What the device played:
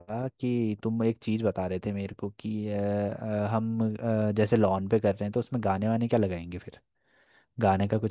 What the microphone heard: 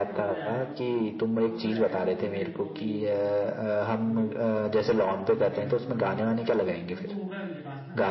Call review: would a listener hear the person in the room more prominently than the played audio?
No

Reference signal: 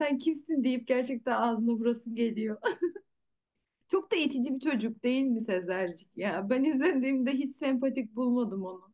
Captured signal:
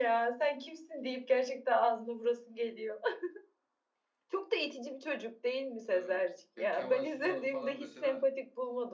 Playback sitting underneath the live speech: No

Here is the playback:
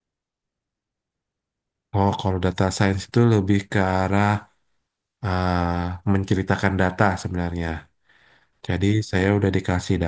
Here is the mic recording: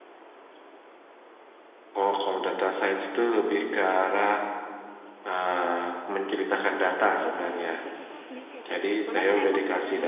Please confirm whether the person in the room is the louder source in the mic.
No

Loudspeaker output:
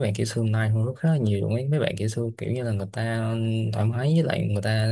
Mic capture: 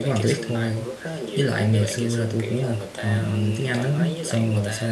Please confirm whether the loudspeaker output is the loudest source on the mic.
No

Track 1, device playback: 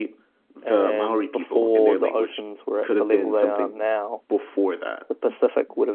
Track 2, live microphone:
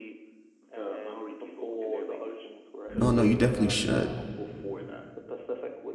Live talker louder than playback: Yes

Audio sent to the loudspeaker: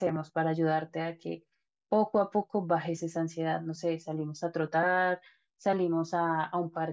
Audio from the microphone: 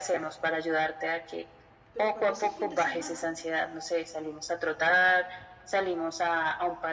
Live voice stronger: No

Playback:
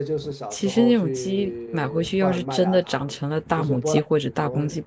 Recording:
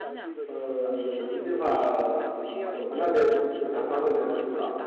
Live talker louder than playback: Yes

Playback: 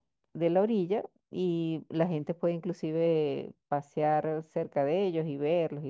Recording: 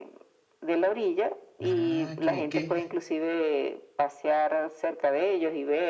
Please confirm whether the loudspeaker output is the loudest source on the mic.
Yes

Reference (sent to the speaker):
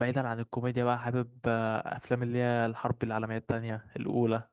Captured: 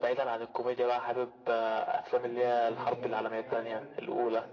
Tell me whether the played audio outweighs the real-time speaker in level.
Yes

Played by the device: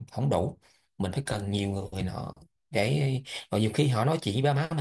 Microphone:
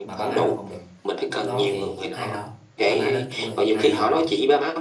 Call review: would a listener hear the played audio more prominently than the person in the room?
Yes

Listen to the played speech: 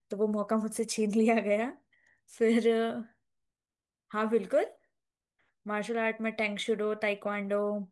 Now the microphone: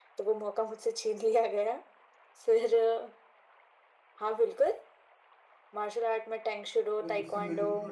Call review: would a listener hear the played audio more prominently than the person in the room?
Yes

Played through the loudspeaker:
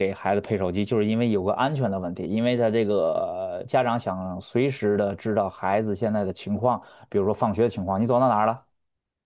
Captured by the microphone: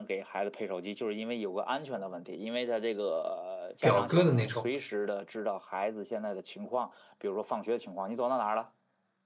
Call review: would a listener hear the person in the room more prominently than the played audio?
Yes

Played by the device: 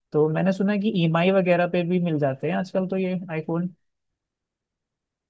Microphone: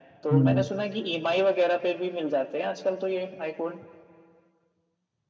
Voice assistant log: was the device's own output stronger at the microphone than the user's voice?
No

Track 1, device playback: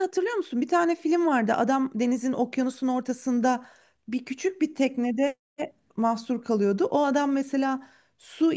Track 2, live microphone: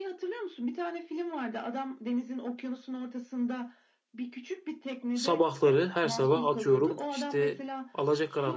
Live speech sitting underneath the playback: No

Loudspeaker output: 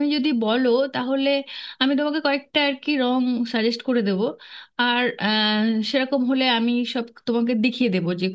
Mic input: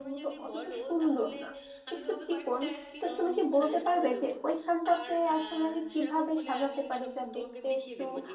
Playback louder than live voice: No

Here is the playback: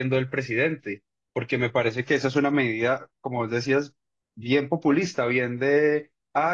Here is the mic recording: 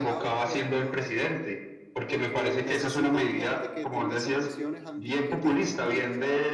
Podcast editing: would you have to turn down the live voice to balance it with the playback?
No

